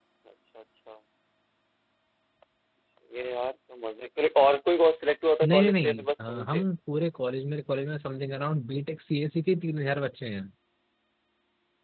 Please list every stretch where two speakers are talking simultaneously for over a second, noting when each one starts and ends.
5.4-6.6

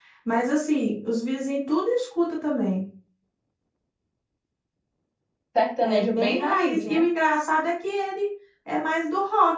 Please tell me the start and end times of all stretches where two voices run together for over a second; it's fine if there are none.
5.8-7.0

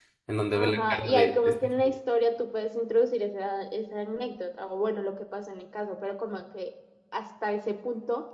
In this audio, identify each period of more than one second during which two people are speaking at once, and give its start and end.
0.5-1.9

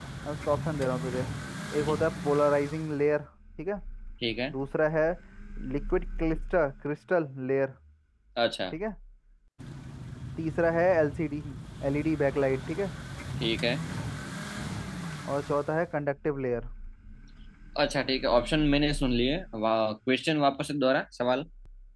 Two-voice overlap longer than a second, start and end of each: none

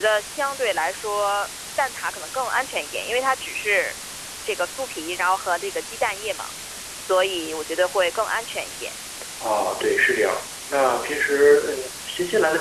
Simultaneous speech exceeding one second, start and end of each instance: none

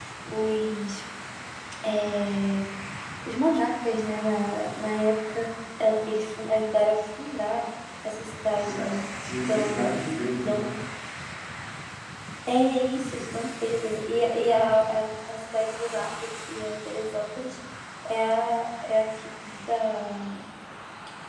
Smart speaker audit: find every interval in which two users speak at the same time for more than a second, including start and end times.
none

